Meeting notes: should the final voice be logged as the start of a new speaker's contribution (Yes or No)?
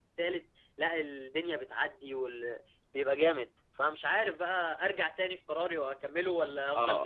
Yes